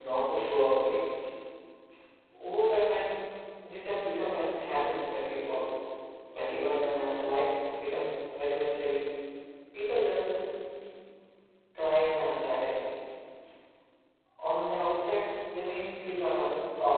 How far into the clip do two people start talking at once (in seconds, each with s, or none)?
none